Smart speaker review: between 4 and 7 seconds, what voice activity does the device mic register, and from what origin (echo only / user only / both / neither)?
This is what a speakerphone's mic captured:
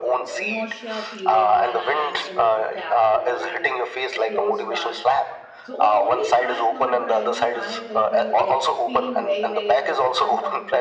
both